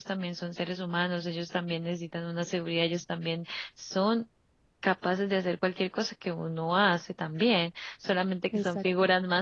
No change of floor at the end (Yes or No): Yes